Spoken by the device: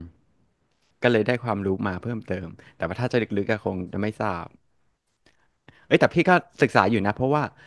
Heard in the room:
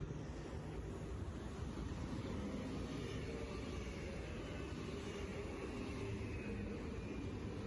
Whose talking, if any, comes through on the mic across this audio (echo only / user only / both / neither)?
neither